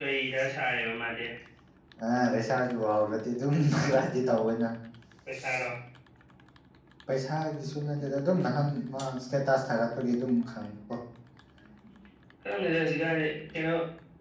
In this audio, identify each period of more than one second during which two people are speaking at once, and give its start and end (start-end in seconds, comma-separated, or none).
none